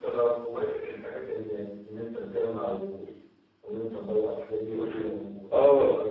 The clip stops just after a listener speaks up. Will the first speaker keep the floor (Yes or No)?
No